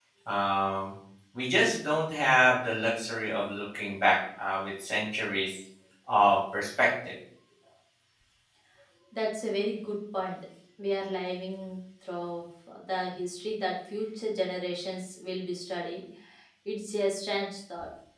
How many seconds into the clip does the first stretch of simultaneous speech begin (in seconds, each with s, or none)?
none